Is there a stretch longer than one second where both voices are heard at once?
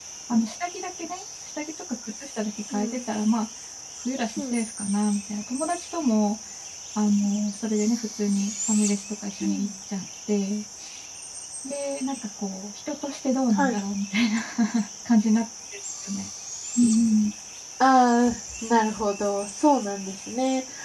No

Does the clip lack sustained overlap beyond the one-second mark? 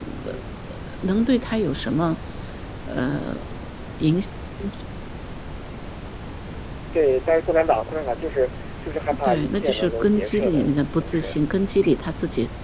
No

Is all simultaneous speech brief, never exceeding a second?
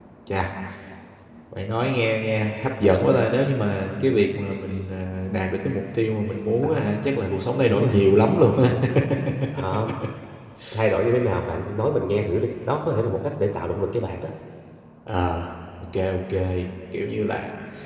Yes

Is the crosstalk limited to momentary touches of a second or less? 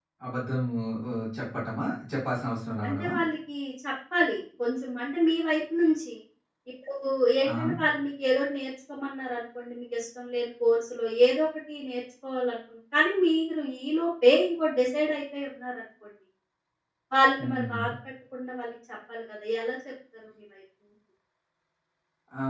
Yes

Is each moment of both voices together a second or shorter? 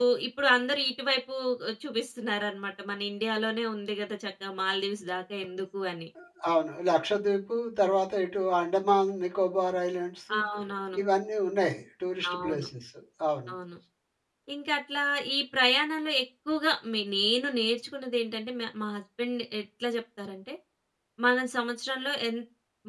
Yes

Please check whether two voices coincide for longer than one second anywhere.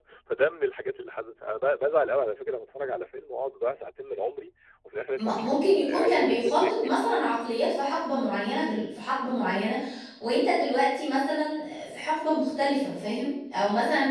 Yes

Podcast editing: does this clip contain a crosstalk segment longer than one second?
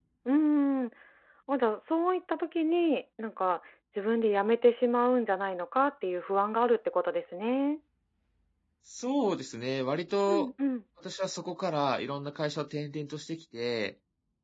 No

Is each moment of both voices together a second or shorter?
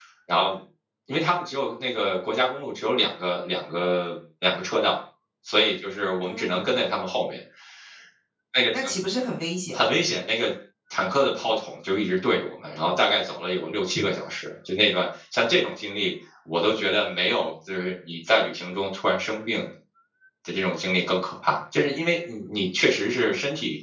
Yes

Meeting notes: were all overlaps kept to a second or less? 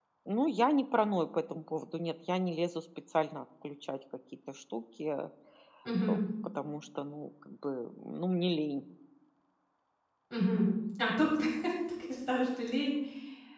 Yes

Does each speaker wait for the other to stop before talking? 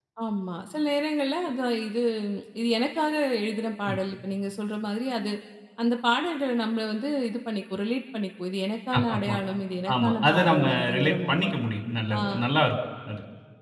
No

